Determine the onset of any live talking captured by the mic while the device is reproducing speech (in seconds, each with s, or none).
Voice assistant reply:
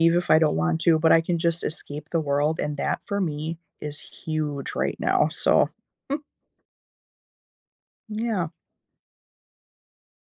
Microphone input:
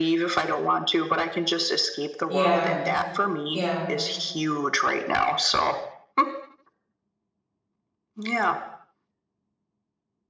2.3 s